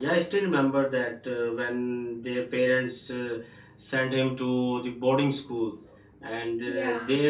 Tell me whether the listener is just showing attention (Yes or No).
Yes